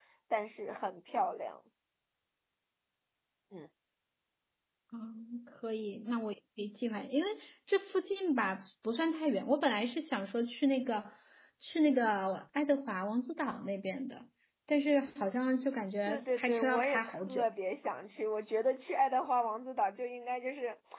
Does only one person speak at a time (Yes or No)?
No